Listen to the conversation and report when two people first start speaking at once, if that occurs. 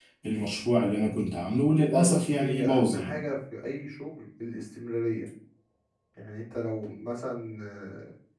2 s

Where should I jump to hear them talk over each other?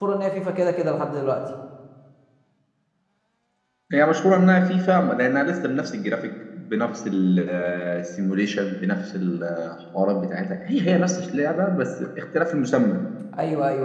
none

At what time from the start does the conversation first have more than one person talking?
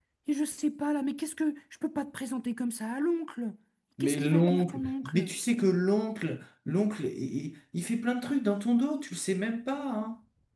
4 s

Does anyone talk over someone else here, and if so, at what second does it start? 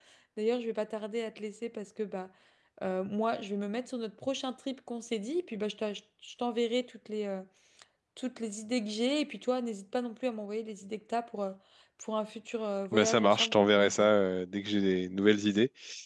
13 s

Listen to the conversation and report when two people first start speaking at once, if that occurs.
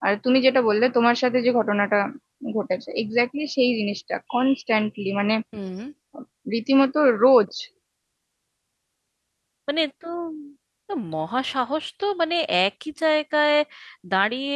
none

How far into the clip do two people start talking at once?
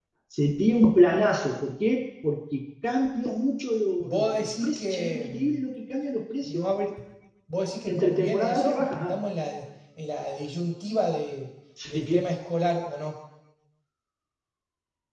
4 s

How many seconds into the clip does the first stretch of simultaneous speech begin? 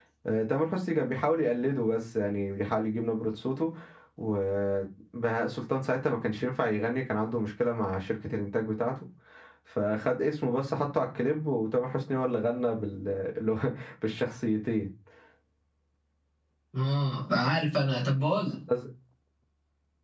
none

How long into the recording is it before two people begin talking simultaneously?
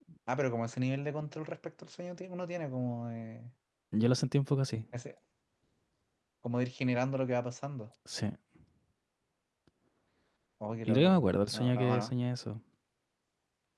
11 s

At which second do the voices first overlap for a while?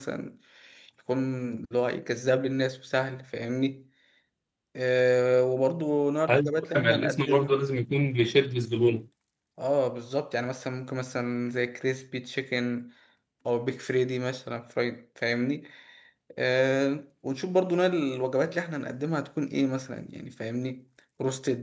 6 s

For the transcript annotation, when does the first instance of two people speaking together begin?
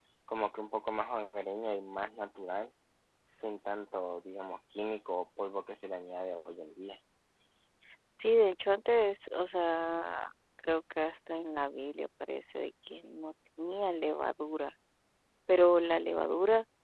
none

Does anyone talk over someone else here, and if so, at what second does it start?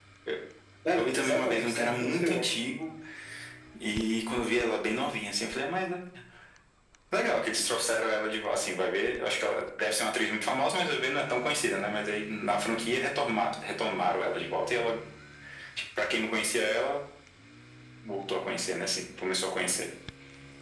1 s

